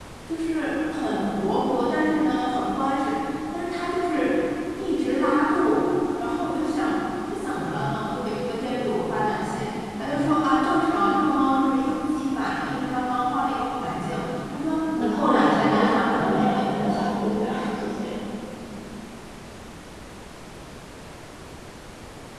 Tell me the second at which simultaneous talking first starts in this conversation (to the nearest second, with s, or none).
15 s